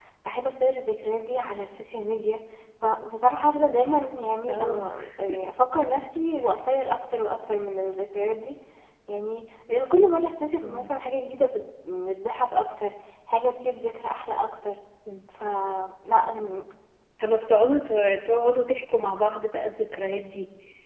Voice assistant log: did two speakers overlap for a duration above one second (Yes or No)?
No